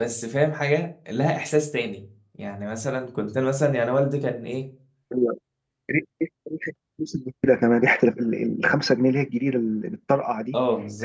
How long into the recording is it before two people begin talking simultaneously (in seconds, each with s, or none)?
none